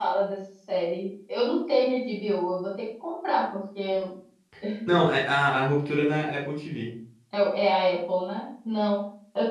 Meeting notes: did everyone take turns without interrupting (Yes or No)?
Yes